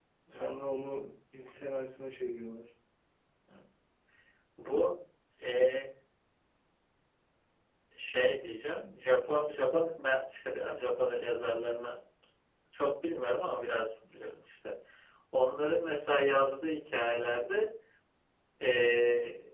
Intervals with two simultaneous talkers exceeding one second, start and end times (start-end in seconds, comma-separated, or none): none